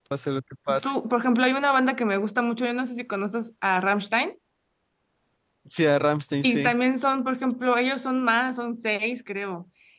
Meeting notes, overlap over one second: none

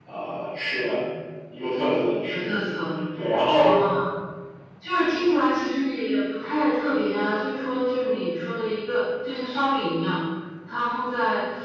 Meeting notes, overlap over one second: none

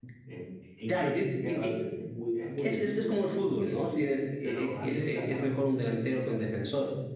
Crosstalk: present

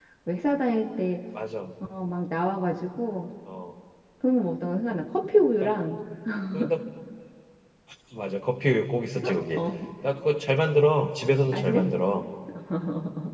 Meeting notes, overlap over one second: none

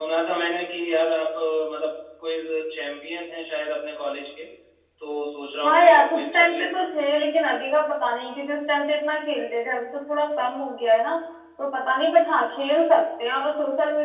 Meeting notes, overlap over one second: present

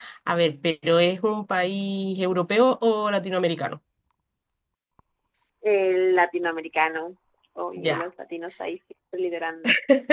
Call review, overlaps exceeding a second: none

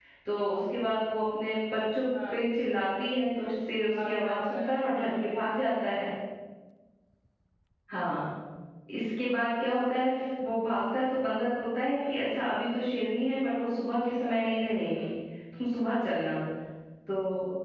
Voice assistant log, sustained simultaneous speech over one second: present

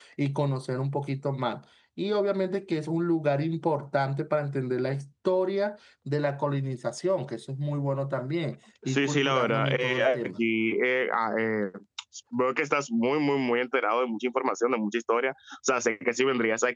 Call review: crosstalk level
present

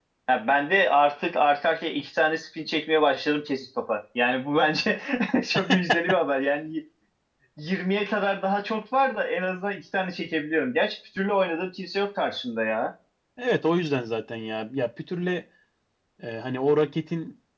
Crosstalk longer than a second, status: none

